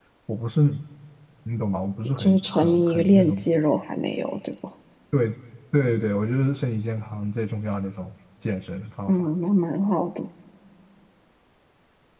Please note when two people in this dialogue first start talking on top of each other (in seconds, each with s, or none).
2.2 s